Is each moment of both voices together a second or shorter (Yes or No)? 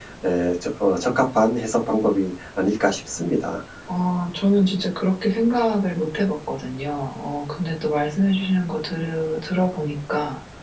Yes